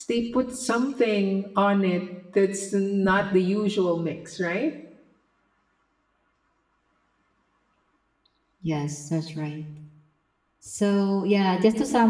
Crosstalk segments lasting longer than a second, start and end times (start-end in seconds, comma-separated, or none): none